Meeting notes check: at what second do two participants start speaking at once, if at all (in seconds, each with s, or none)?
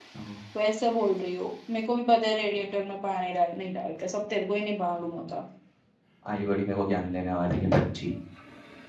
none